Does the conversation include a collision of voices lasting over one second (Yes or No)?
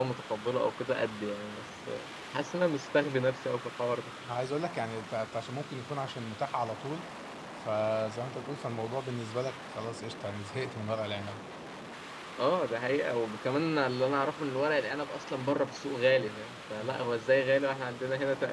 No